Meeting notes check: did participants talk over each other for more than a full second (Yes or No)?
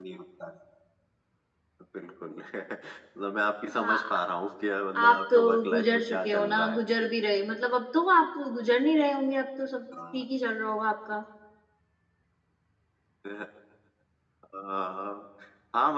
Yes